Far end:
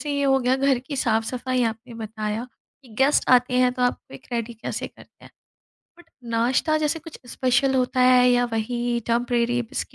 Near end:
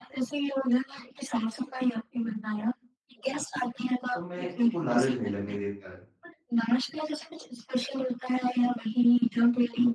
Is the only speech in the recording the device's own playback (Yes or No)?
No